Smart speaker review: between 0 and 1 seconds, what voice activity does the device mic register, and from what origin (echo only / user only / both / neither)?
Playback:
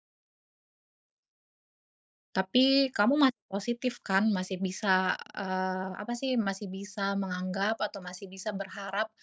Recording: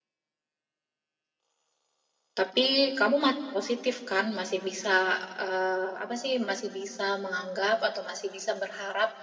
neither